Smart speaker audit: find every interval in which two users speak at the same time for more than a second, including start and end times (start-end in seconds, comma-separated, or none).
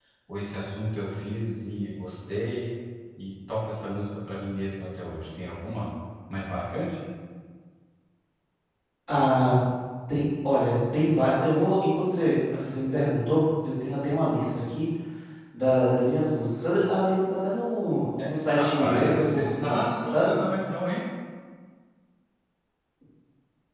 18.2-20.4